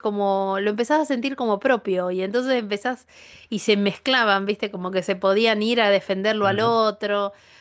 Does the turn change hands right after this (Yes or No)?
No